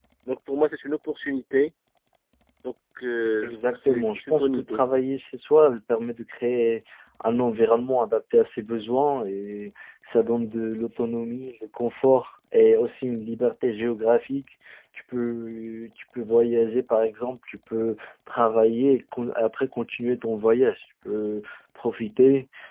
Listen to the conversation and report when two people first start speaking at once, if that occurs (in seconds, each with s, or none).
3.4 s